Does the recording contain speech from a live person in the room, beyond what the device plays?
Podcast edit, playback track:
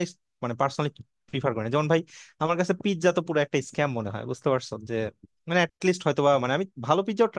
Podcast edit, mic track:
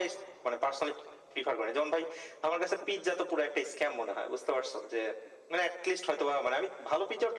No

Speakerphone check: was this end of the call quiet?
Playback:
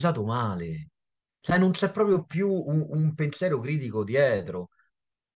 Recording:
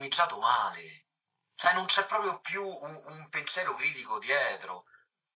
Yes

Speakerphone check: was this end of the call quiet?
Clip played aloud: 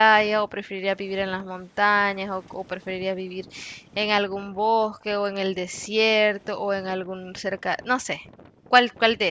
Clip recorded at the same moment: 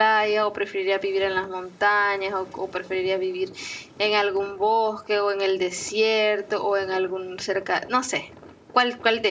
Yes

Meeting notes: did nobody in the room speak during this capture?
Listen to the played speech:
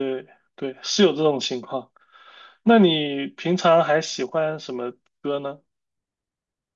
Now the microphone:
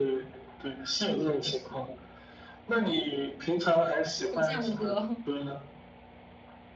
No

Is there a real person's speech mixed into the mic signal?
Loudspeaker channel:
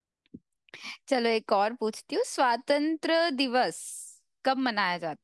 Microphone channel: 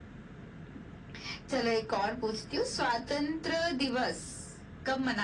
No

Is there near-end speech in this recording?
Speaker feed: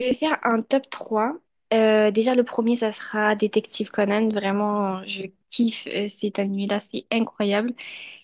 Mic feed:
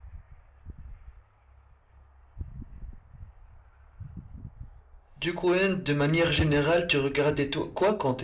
Yes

